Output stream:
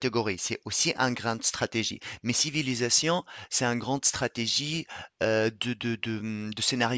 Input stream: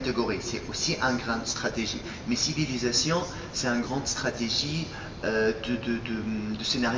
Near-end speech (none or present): none